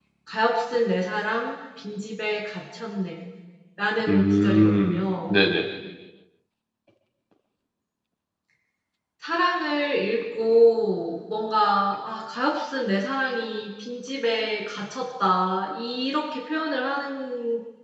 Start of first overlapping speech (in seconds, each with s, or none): 4.1 s